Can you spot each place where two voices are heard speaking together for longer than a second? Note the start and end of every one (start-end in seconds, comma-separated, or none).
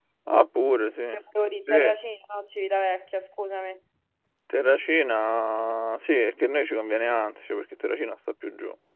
none